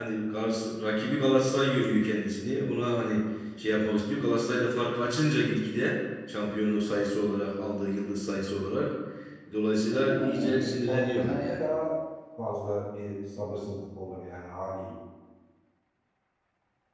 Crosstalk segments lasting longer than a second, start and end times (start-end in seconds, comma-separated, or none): 9.9-11.7